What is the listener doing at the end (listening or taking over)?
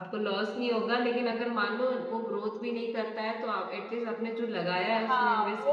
taking over